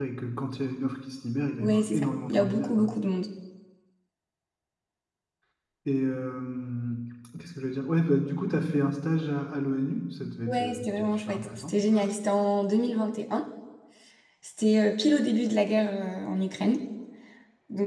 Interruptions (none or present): present